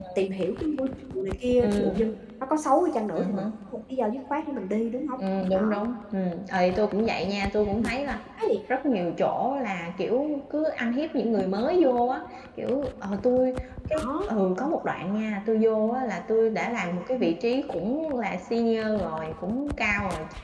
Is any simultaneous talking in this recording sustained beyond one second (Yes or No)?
No